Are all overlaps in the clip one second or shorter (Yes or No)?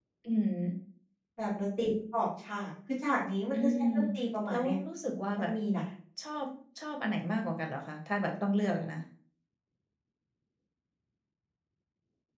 Yes